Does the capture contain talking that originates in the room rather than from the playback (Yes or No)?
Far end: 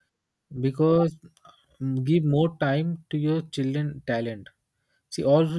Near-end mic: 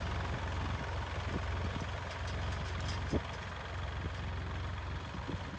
No